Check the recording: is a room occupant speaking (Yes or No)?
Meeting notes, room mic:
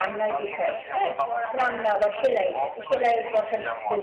Yes